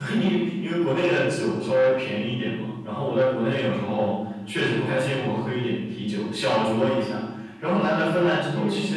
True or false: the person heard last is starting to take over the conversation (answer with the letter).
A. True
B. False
B